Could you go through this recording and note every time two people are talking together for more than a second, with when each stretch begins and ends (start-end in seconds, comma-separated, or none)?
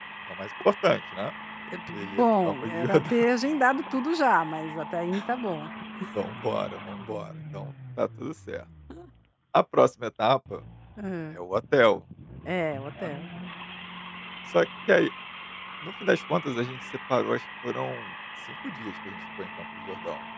1.9-3.3